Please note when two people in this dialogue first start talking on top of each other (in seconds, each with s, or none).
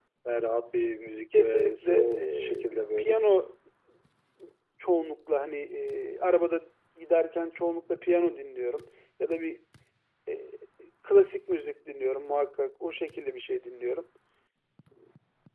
1.3 s